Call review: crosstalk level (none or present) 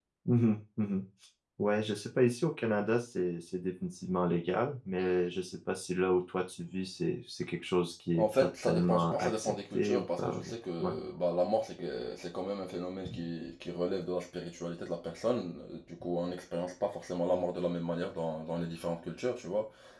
present